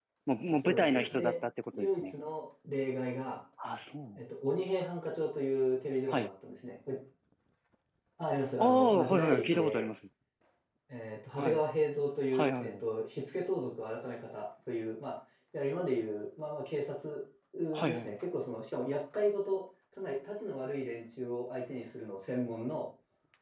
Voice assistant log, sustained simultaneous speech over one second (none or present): present